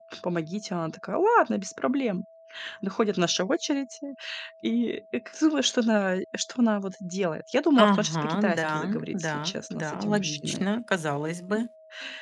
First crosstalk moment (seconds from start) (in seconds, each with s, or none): 7.8 s